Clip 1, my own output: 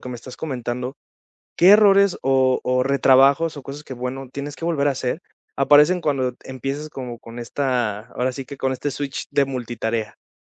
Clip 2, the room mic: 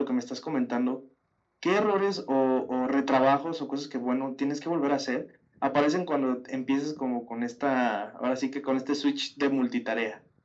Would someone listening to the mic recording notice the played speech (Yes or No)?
Yes